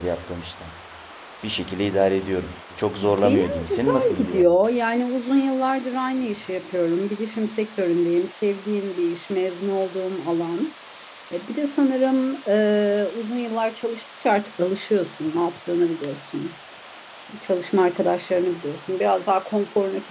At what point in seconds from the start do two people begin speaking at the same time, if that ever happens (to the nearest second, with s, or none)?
3 s